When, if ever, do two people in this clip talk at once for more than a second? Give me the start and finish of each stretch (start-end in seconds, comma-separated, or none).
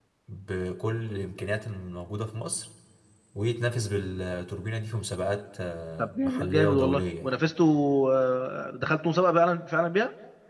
6.0-7.3